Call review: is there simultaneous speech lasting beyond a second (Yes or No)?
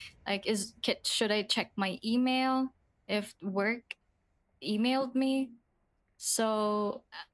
No